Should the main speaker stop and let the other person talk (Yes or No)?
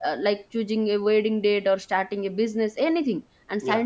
No